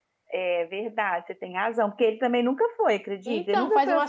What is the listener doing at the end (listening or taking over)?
taking over